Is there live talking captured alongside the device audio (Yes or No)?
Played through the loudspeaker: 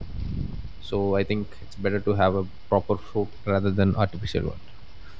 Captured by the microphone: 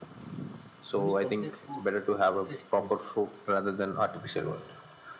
Yes